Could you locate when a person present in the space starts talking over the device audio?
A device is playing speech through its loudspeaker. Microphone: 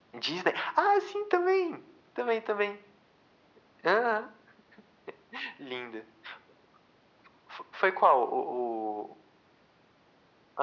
none

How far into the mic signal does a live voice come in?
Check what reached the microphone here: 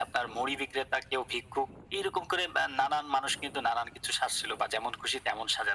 none

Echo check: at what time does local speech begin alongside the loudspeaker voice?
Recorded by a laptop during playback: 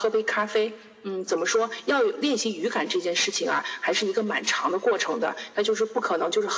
none

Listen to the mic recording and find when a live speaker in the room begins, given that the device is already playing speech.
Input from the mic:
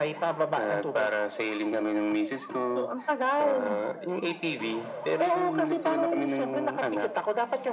none

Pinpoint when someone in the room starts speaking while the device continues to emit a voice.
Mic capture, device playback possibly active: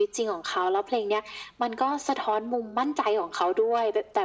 none

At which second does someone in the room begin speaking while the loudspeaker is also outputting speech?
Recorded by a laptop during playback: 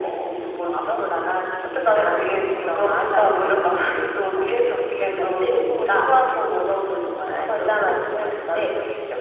none

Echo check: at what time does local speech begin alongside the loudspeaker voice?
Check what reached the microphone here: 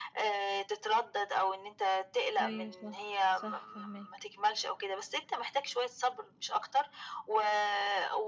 2.4 s

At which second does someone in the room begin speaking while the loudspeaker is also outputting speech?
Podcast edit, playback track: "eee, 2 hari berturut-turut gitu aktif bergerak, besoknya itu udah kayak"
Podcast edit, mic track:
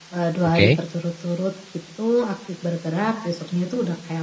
0.4 s

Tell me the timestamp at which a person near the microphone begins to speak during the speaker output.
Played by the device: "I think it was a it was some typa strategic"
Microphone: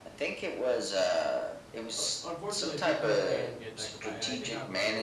2.0 s

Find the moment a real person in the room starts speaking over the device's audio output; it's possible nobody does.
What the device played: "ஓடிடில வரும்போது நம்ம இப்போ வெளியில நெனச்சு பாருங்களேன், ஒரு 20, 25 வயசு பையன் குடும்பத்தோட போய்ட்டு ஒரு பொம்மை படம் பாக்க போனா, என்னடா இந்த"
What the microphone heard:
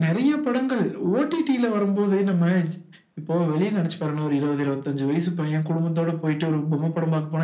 none

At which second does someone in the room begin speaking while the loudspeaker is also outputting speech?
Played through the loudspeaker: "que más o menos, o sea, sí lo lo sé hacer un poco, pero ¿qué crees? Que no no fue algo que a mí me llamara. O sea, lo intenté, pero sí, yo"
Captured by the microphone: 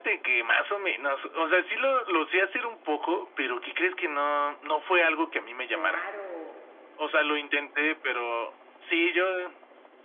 5.7 s

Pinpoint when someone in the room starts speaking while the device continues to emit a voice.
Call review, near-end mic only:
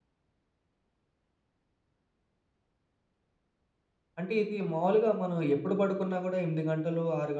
4.2 s

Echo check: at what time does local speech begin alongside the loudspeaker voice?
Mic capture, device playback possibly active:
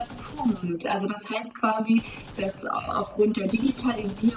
none

